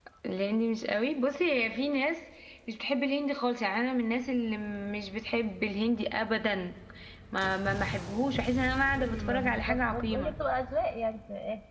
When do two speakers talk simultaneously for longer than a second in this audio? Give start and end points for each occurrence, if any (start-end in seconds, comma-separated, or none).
9.0-10.3